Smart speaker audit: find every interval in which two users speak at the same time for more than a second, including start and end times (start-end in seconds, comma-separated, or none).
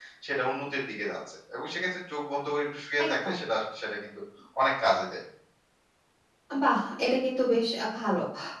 none